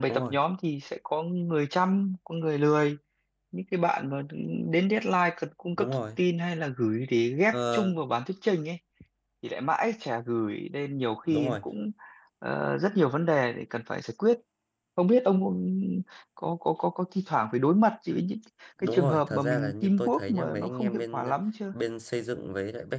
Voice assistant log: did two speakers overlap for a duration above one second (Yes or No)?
Yes